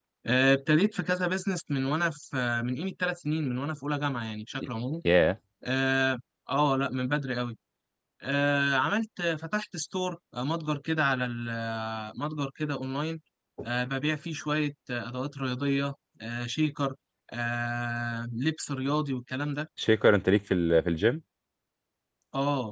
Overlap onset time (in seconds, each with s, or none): none